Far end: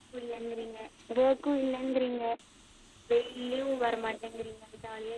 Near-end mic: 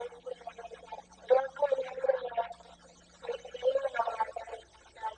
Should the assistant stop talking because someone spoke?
No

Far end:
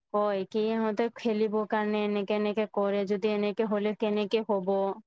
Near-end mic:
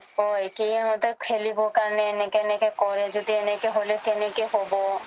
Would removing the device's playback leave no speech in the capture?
Yes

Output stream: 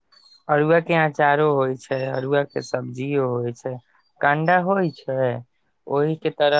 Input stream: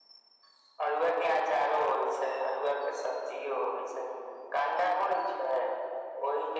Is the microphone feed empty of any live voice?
Yes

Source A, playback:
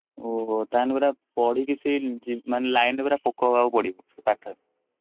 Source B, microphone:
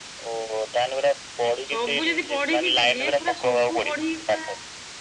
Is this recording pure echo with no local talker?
No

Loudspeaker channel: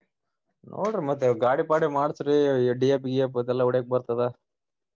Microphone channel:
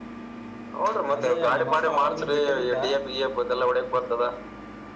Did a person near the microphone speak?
Yes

